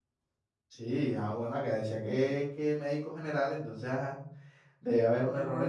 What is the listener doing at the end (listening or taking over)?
listening